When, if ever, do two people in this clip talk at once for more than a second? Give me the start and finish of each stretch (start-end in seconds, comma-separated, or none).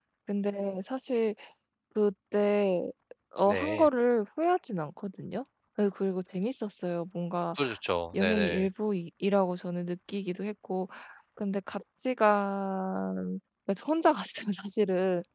none